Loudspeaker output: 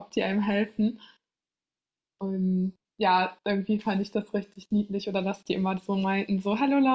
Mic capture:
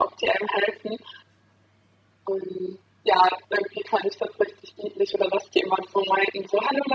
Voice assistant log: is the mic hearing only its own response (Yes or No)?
Yes